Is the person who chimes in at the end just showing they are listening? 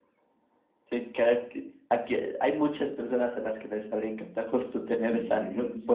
No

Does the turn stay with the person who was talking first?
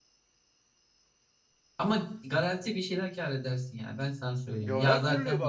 No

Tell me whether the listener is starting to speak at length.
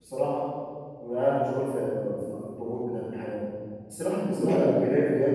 No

